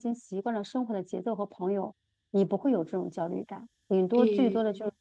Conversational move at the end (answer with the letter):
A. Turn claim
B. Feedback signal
B